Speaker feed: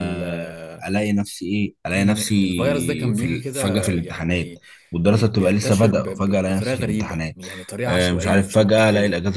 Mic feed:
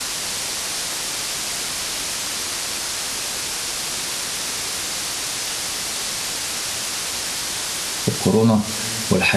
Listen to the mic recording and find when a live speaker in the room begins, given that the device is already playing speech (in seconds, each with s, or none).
8.1 s